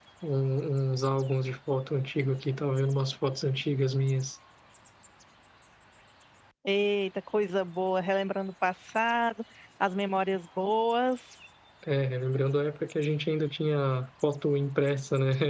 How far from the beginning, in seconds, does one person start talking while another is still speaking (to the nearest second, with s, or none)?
none